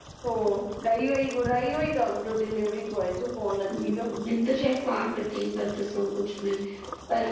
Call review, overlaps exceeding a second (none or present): none